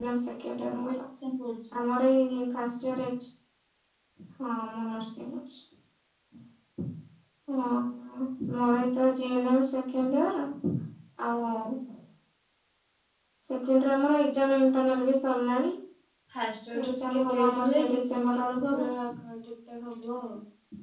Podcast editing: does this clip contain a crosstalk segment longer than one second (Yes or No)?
Yes